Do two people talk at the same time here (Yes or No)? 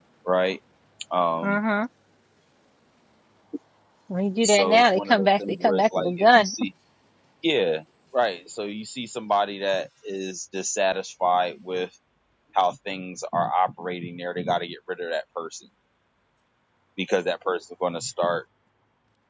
Yes